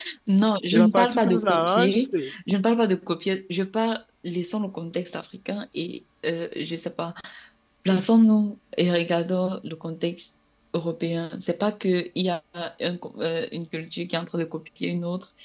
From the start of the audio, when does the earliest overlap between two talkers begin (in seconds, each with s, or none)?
0.7 s